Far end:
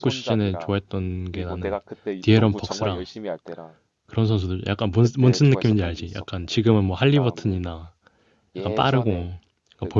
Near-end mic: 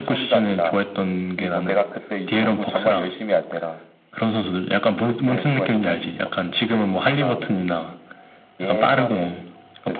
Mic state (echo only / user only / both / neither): echo only